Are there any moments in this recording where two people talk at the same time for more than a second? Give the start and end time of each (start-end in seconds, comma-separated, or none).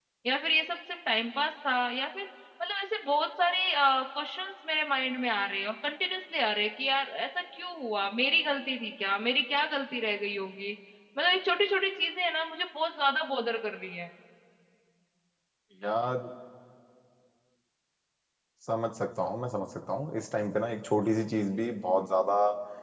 none